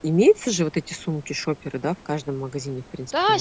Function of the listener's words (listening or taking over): taking over